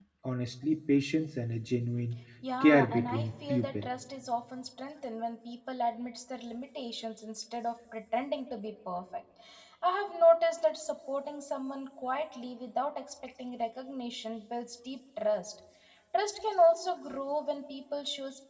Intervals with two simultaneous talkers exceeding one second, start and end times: 2.6-3.8

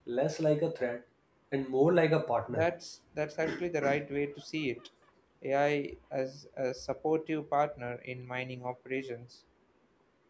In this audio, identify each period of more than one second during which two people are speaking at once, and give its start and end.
none

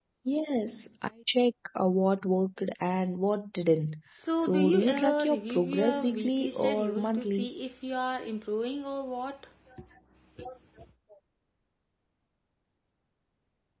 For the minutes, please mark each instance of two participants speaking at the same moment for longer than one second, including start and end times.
4.4-7.5

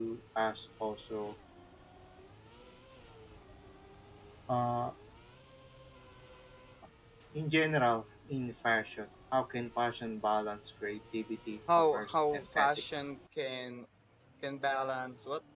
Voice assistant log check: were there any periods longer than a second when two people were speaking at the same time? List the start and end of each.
11.8-13.1

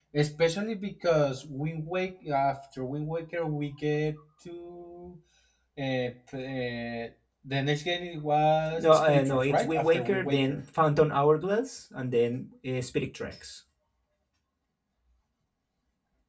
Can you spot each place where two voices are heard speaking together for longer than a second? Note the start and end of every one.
8.7-10.6

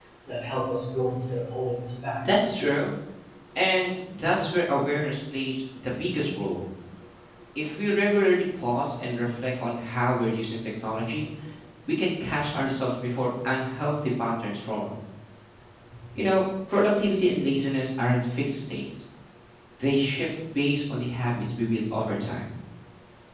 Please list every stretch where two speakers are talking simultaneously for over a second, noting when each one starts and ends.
none

